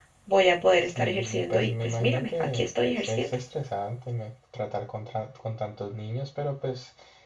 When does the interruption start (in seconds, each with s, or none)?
1.0 s